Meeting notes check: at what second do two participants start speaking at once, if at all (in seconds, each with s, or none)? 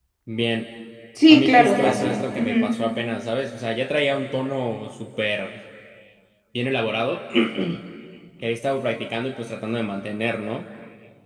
1.3 s